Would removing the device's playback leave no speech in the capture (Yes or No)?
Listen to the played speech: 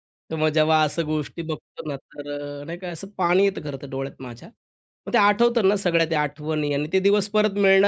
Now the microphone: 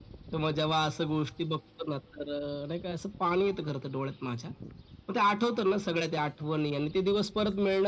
Yes